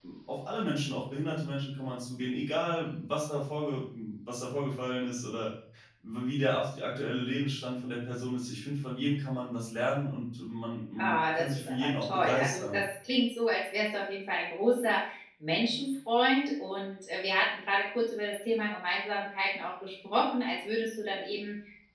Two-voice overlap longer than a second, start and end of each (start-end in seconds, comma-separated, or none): 11.0-12.8